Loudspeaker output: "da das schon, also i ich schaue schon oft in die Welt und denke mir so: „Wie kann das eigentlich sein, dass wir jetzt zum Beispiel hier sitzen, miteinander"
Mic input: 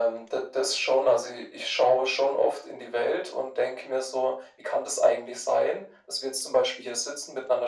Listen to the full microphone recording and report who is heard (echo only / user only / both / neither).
echo only